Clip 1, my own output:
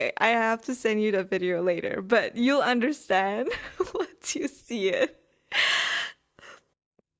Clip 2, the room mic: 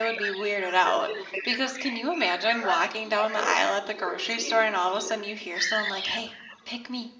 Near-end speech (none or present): present